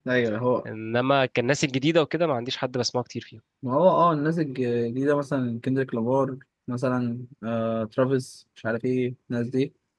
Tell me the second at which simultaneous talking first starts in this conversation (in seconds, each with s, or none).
none